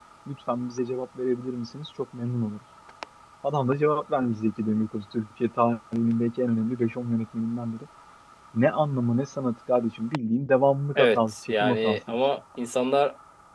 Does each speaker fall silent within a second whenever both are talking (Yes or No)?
No